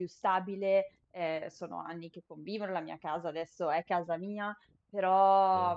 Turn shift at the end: Yes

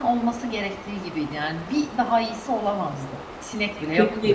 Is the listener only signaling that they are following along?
No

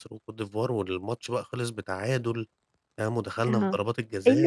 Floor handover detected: Yes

